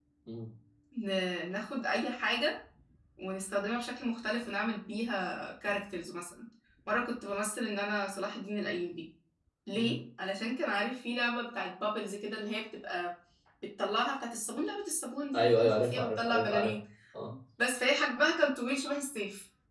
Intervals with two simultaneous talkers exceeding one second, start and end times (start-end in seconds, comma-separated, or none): 15.3-16.8